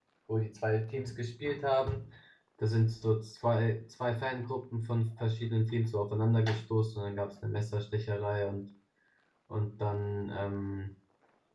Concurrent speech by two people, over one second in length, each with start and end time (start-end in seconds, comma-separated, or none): none